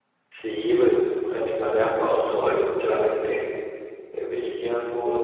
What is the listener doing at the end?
taking over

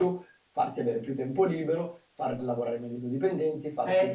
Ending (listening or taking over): taking over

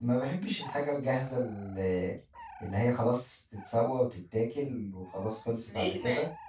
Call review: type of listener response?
taking over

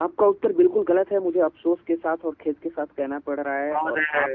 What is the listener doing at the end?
listening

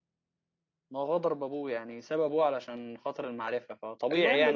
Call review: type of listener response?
taking over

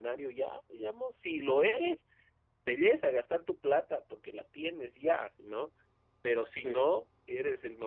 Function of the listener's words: listening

